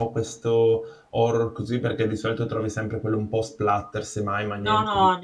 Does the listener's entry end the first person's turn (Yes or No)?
Yes